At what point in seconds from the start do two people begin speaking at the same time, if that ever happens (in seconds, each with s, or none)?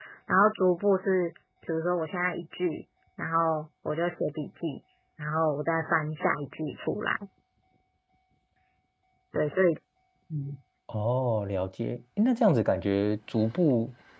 none